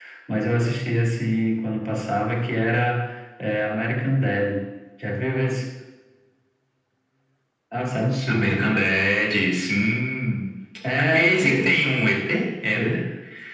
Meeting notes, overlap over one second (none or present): none